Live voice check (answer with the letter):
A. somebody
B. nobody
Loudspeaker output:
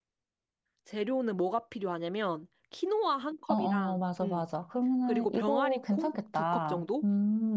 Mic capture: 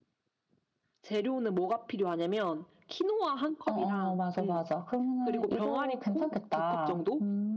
B